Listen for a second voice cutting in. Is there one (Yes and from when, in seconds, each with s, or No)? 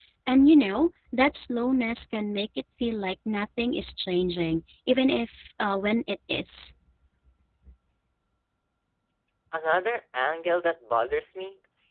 No